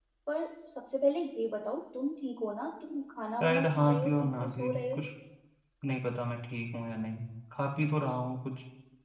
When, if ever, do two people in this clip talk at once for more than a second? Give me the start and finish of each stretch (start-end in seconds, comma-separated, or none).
3.4-5.0